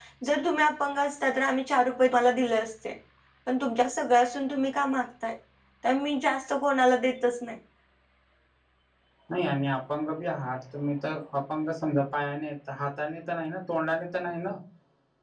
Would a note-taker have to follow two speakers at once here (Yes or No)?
No